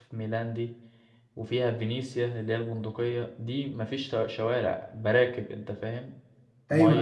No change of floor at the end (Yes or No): No